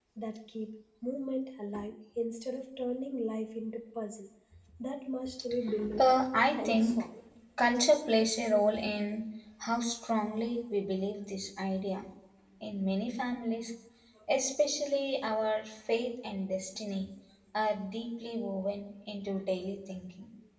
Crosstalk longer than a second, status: none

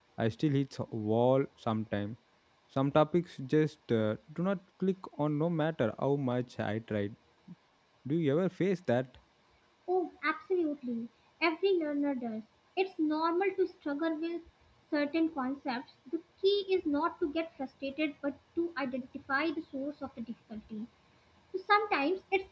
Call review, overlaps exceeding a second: none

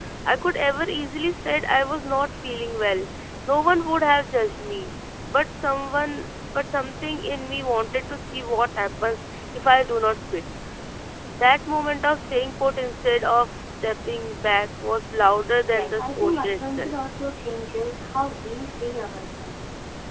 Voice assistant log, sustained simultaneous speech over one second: present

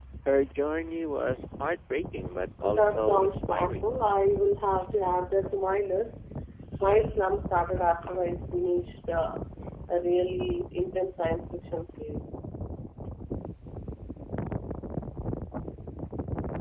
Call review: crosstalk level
present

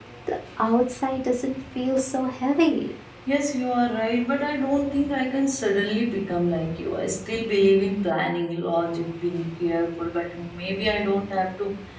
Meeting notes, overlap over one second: none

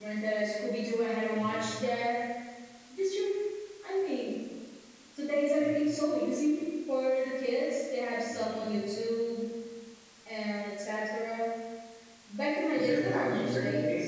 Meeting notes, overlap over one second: present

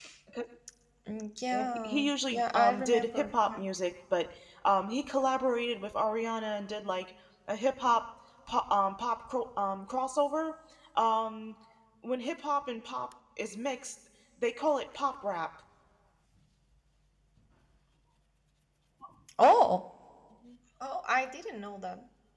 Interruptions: present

